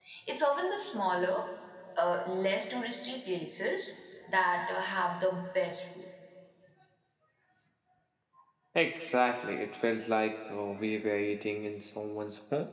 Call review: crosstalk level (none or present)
none